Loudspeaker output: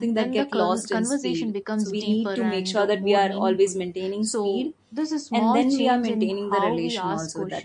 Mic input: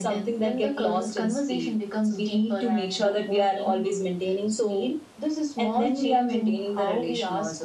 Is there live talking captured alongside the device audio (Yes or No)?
No